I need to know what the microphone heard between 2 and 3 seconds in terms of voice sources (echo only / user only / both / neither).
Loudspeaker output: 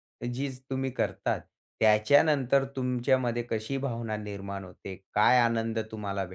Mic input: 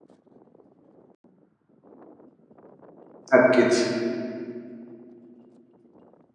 neither